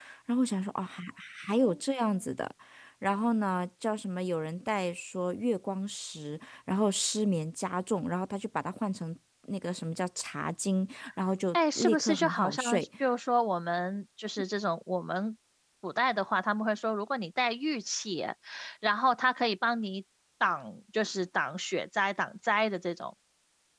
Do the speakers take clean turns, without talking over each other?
No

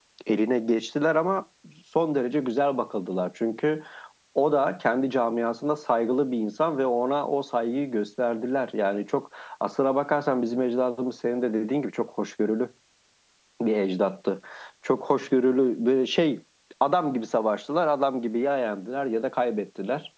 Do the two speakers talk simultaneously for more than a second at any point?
No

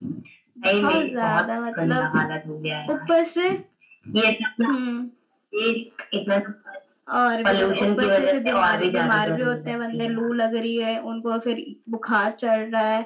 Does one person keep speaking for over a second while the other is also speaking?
Yes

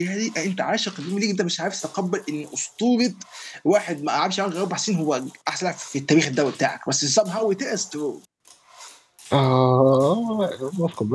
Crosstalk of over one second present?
No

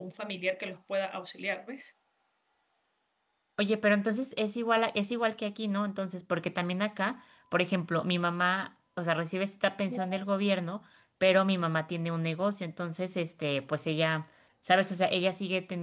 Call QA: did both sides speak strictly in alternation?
Yes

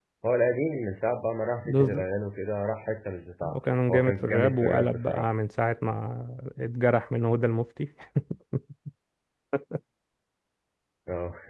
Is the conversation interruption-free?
No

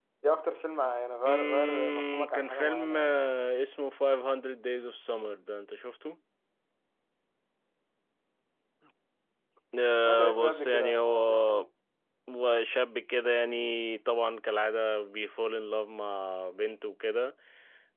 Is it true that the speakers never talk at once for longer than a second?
No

